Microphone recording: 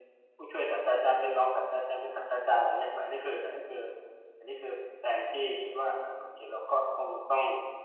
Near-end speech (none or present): none